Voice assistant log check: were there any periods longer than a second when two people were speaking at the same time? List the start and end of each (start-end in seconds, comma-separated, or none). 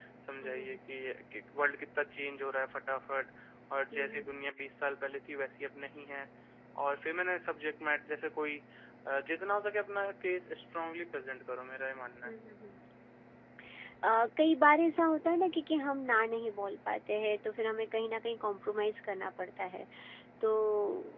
none